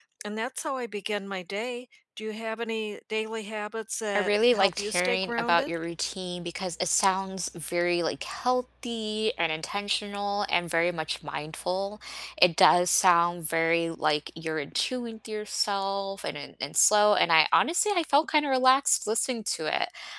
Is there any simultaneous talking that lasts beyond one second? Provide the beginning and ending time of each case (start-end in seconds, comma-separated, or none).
4.2-5.7